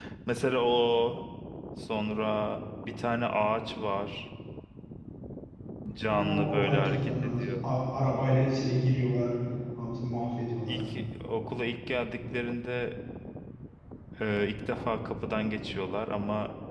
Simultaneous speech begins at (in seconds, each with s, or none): 6.1 s